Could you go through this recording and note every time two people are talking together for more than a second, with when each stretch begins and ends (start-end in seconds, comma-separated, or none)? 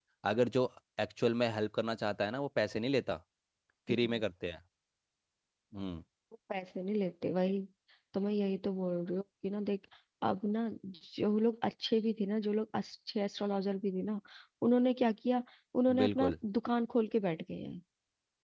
none